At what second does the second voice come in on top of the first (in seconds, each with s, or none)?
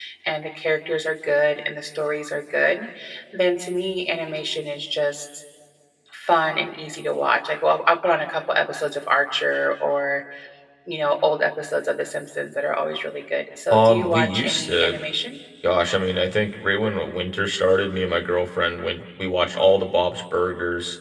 13.7 s